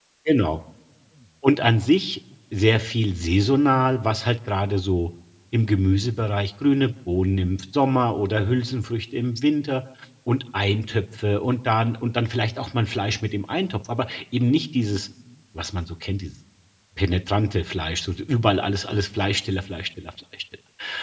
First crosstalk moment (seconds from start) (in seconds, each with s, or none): none